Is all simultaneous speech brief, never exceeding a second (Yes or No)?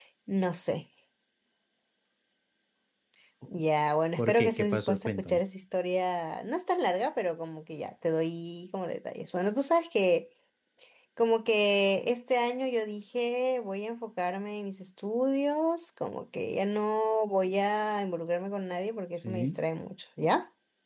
No